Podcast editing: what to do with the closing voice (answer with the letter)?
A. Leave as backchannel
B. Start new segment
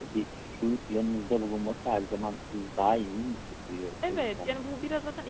B